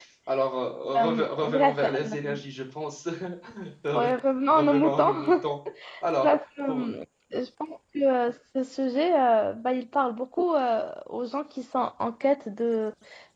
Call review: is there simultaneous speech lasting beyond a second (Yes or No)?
Yes